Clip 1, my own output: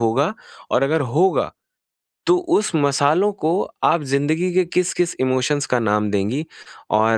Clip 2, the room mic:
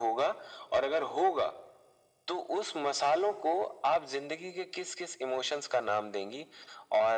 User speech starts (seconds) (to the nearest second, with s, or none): none